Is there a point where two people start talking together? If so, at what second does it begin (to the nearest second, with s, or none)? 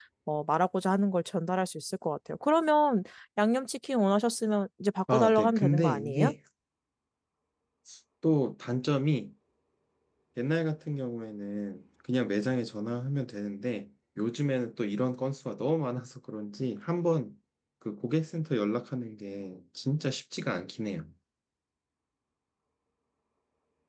5 s